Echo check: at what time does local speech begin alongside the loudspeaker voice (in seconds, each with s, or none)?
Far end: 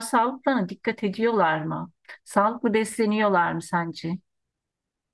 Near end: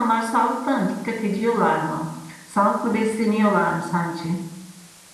none